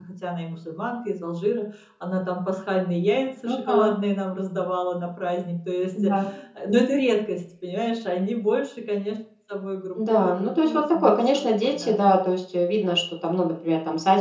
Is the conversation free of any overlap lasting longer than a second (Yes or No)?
No